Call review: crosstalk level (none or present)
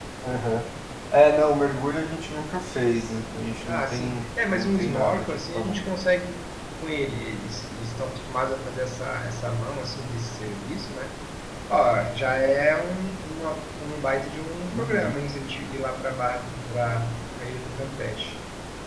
present